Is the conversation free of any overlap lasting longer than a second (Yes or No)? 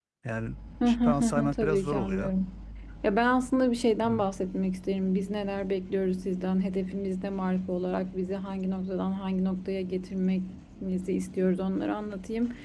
No